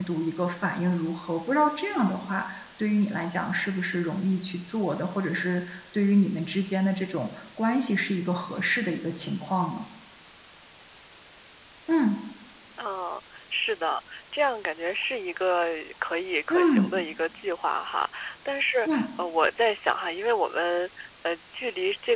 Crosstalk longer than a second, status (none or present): none